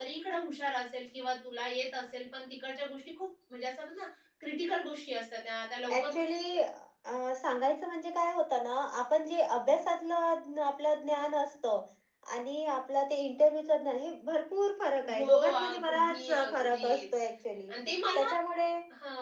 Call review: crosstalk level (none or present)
present